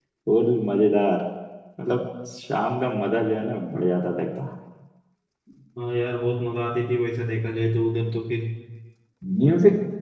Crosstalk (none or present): none